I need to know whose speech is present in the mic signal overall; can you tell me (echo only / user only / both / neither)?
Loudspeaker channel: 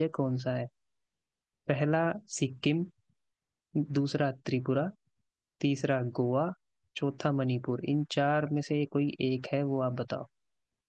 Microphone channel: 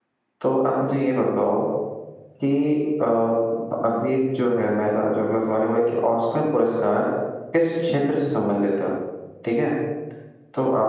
user only